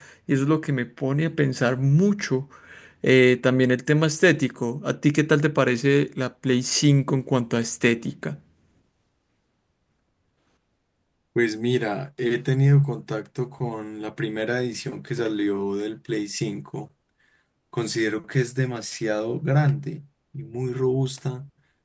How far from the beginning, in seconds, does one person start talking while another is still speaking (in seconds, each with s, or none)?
none